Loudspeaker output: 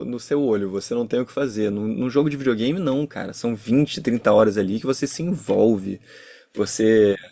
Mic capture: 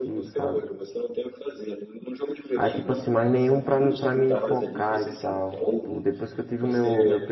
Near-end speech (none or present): present